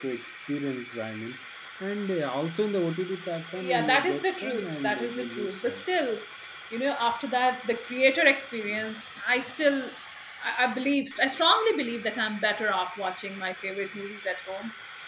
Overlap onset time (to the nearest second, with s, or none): 4 s